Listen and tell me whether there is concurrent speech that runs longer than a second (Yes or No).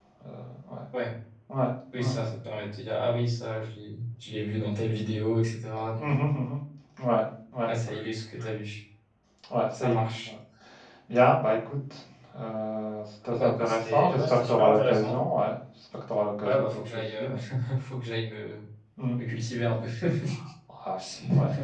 Yes